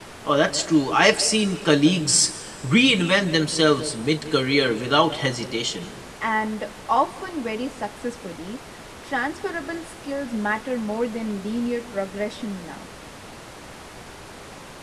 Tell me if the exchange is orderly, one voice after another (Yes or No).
Yes